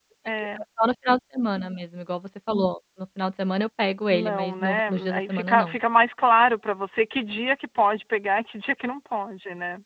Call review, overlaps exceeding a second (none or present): present